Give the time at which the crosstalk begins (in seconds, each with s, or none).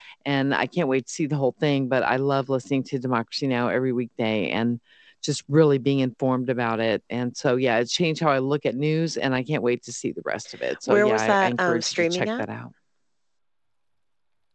10.6 s